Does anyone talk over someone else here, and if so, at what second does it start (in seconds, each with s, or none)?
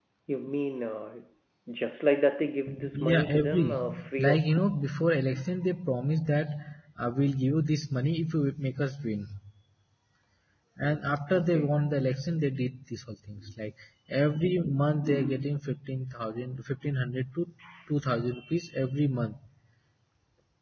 2.9 s